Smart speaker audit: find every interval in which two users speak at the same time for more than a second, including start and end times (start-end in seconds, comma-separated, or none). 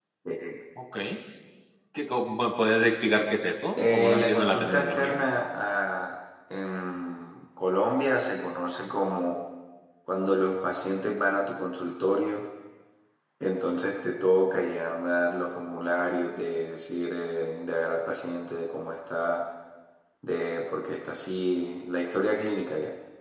3.8-5.2